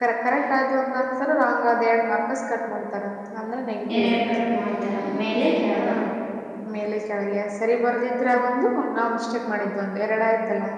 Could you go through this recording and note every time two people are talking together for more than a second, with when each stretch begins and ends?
none

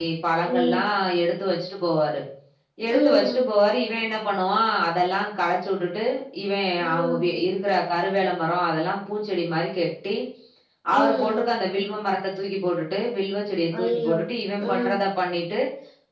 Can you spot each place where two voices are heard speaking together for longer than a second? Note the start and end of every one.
none

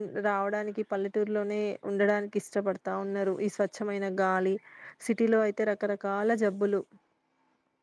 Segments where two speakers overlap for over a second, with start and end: none

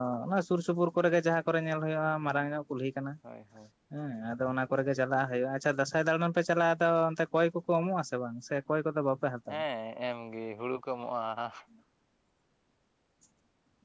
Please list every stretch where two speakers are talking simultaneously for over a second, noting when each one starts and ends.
none

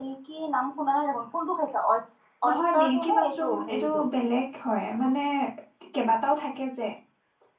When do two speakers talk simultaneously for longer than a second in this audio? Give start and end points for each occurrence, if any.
2.5-4.0

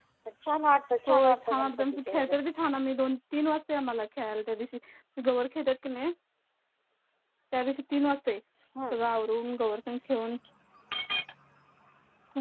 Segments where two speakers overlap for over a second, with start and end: 1.1-2.3

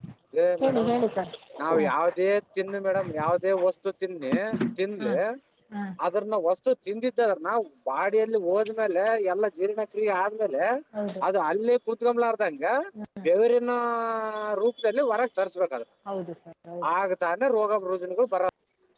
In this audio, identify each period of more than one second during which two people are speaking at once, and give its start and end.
none

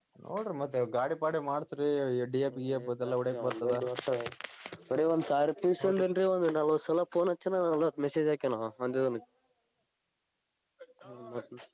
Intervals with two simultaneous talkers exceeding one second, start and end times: 2.5-3.8

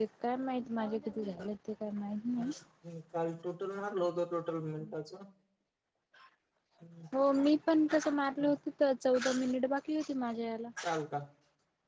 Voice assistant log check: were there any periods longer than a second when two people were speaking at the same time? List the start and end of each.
none

